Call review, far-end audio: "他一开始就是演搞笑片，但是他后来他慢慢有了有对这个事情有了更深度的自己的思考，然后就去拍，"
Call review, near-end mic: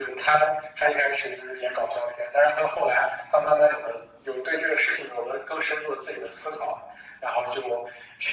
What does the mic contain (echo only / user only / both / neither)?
echo only